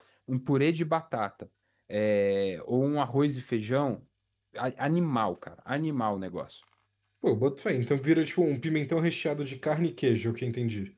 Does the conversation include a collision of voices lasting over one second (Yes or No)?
No